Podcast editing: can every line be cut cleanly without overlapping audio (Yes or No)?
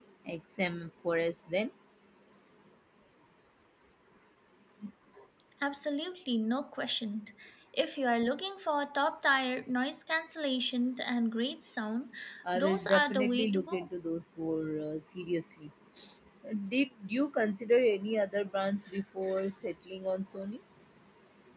No